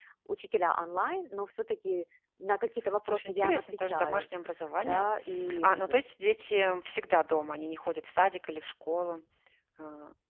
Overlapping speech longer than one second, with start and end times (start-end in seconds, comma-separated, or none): 3.0-4.3